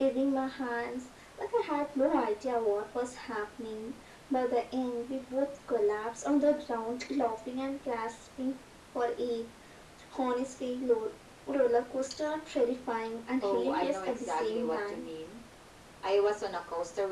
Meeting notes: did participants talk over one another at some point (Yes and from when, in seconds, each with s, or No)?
Yes, from 13.4 s